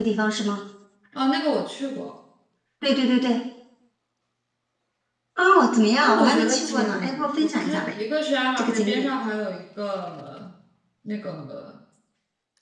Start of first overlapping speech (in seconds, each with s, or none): 6.0 s